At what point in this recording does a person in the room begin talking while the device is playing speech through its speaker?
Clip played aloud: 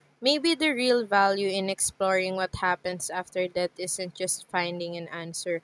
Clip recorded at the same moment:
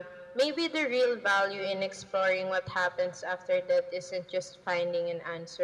none

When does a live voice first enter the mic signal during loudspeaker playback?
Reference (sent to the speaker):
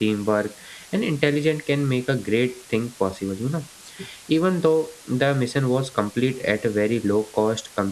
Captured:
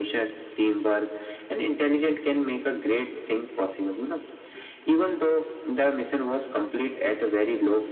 none

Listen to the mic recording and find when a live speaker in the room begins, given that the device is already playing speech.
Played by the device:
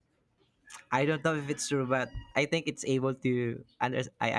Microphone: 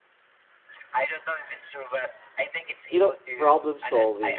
2.9 s

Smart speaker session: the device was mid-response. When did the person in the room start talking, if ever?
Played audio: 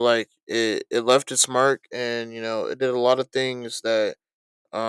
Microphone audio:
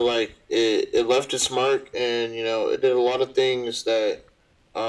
none

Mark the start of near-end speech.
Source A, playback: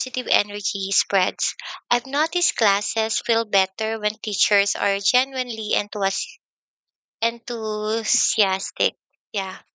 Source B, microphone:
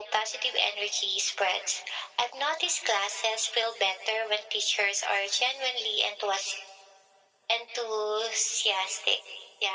none

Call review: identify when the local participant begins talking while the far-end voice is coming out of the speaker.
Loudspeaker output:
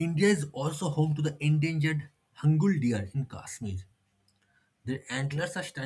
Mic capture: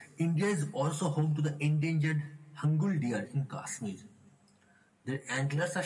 none

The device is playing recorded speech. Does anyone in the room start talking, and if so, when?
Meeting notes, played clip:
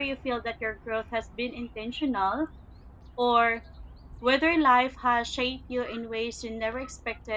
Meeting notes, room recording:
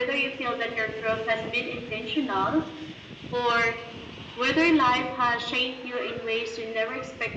none

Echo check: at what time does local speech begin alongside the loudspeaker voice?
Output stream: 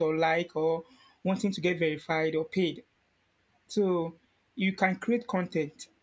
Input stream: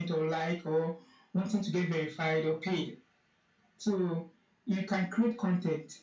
none

